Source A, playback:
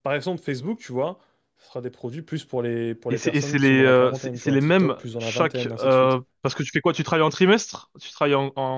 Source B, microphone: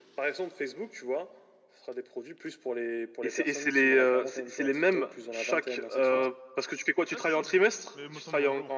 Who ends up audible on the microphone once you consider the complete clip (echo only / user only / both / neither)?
both